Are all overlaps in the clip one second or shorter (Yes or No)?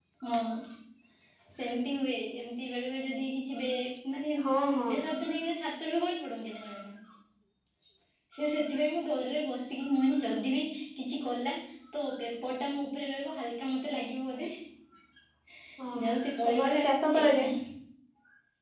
No